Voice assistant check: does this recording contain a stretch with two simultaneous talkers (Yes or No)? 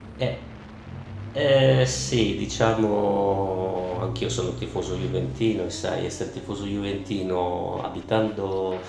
No